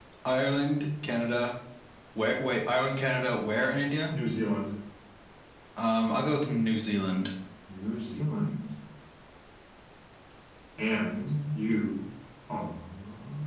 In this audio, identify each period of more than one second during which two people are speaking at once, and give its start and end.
none

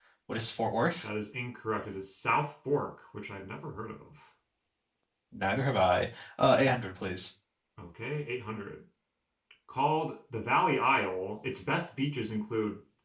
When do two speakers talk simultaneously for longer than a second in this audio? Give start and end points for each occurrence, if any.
none

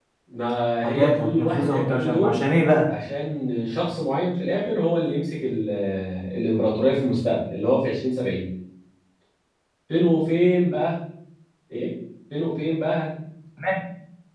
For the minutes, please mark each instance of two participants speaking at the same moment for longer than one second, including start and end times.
0.8-2.4

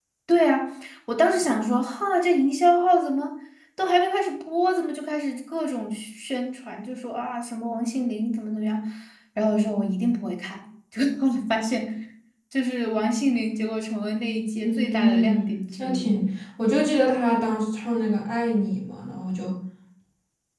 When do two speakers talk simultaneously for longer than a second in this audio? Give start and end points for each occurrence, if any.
14.6-16.2

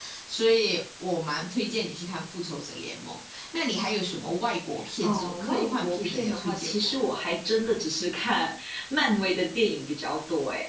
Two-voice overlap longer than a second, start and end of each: 5.0-6.9

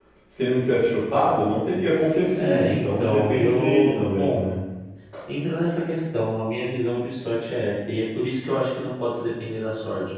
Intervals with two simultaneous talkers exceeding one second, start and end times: 2.3-4.4

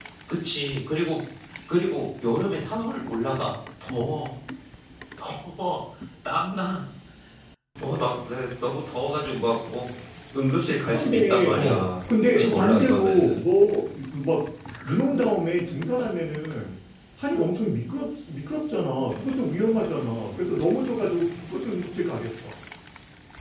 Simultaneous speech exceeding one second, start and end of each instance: 10.9-13.4

